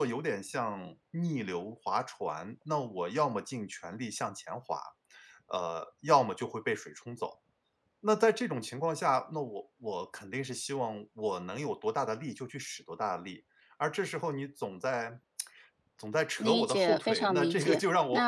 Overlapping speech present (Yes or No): Yes